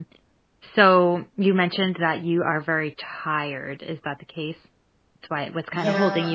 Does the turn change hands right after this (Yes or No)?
No